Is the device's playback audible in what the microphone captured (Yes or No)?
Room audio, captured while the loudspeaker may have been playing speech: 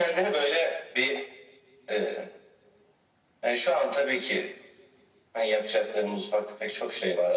Yes